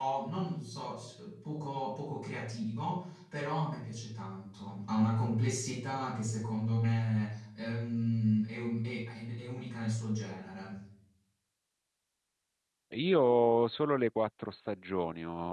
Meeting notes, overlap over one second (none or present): none